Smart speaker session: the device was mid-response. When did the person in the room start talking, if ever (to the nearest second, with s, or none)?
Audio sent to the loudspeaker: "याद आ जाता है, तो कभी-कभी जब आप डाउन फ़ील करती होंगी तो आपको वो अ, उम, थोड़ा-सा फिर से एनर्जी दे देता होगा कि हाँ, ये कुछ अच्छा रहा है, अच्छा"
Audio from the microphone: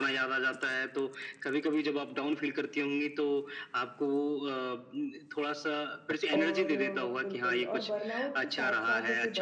6 s